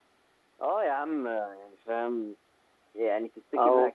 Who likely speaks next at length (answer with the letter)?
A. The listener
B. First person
B